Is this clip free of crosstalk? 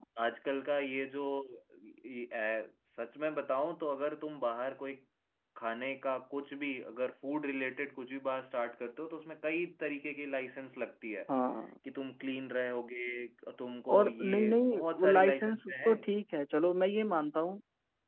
No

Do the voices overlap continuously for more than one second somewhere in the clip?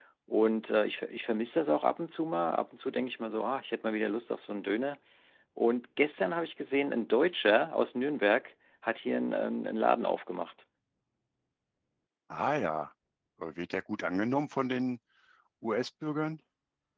No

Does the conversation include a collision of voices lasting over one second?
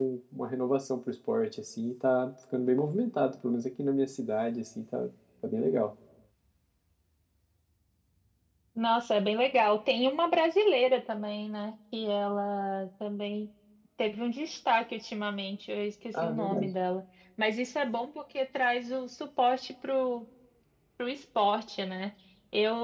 No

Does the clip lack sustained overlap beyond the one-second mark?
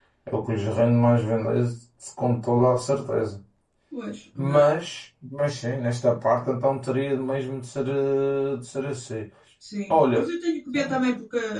Yes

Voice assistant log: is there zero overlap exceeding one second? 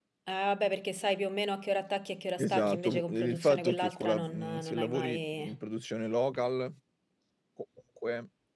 No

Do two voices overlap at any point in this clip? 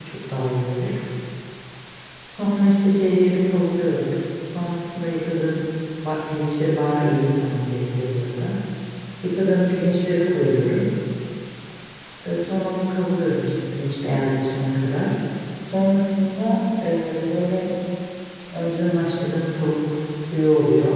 No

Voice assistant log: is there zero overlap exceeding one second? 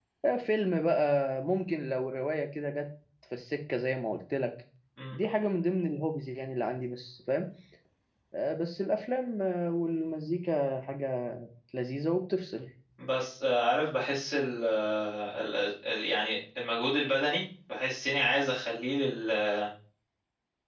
Yes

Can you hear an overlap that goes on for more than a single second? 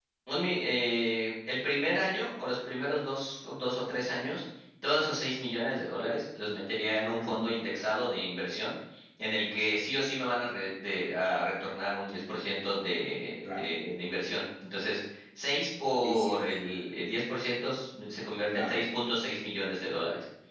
No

